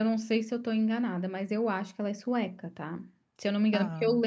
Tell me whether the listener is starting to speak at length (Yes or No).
No